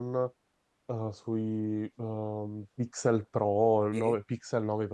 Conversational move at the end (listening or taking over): listening